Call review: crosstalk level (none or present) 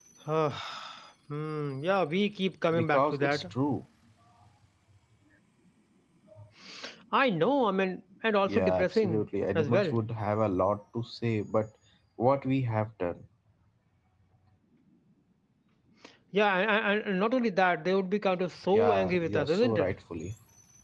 present